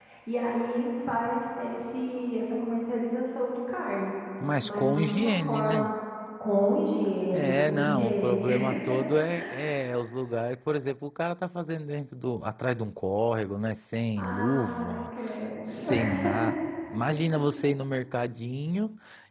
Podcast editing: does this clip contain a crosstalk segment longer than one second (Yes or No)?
Yes